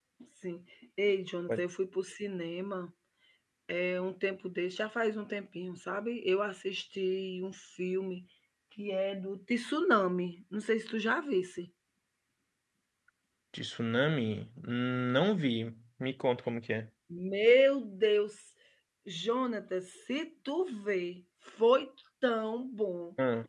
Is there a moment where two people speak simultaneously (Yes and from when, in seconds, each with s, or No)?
No